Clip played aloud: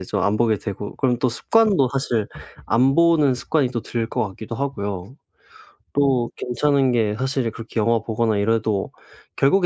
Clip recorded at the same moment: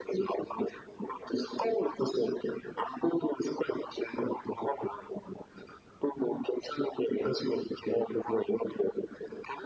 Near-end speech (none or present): none